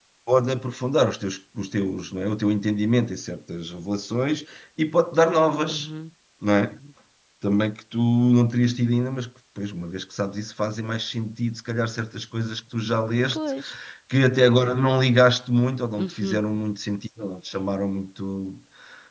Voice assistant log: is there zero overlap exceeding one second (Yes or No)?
Yes